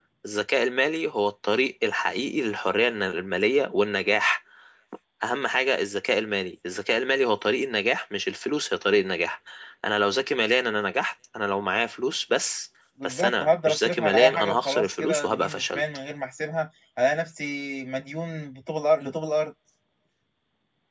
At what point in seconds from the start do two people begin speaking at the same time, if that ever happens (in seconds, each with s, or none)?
13.0 s